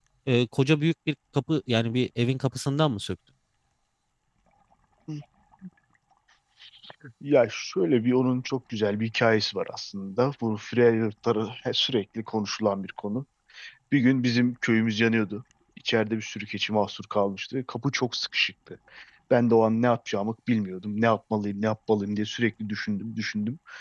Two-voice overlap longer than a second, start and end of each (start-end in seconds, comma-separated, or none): none